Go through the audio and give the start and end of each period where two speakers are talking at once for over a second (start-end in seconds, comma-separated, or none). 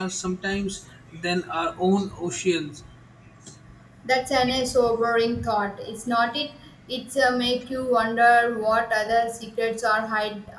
none